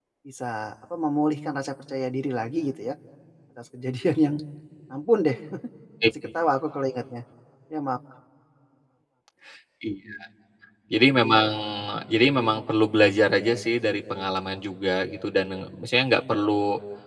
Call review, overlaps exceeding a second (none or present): none